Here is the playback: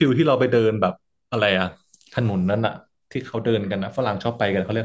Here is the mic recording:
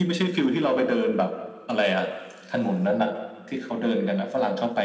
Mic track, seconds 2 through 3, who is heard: echo only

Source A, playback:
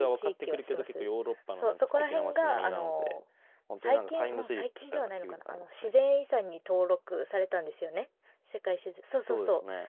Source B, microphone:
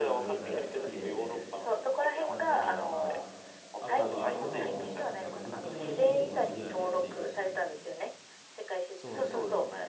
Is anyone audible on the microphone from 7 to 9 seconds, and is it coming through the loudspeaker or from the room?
both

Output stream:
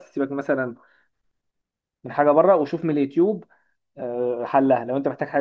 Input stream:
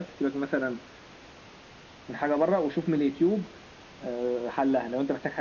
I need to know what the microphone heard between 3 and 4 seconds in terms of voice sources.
echo only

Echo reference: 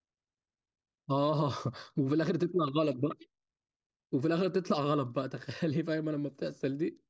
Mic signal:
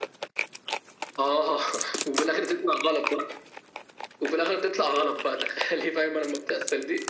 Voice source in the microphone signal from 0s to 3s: echo only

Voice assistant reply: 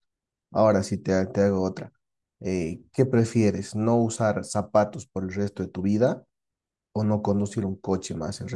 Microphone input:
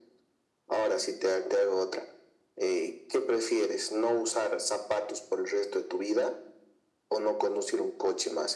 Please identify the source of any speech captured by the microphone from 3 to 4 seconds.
echo only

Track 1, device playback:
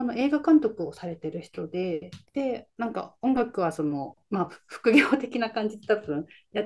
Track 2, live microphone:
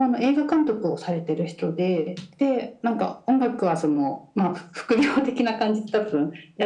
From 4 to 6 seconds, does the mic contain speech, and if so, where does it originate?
echo only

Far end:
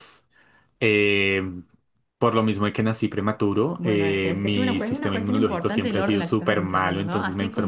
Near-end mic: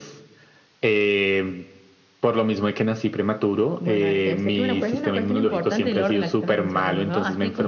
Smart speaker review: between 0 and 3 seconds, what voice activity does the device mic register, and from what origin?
echo only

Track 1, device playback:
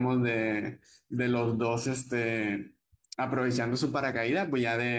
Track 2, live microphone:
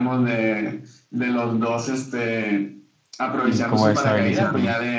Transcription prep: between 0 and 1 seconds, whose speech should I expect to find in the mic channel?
echo only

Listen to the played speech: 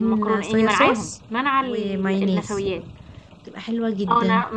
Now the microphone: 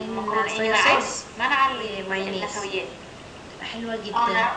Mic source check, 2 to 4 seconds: echo only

